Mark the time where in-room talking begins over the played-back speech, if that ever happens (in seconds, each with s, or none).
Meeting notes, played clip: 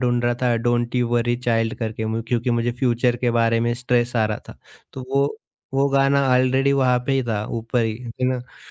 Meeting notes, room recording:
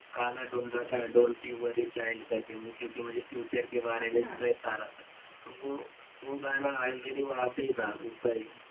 4.0 s